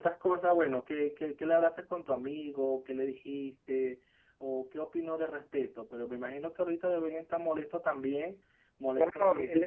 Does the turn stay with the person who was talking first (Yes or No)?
No